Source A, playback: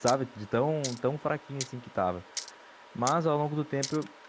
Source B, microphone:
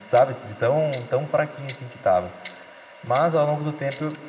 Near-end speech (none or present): none